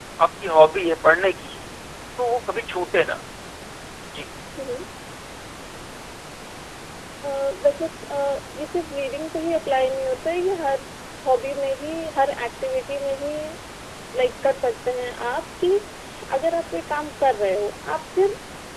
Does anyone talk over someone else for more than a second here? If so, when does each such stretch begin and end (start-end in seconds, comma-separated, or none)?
none